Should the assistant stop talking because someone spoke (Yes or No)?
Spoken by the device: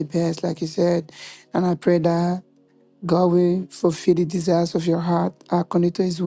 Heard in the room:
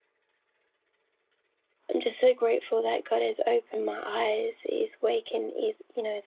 Yes